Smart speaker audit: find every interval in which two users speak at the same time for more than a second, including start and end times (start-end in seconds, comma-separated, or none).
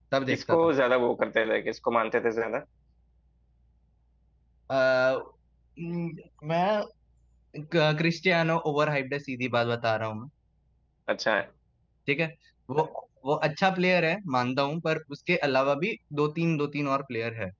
none